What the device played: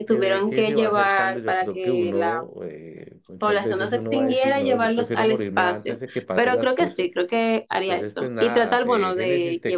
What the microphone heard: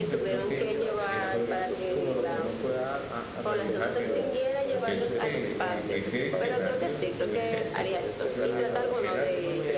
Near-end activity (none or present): present